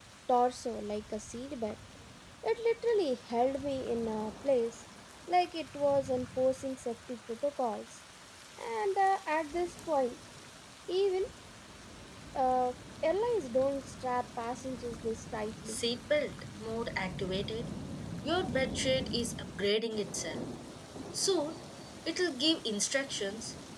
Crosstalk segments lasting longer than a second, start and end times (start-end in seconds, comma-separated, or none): none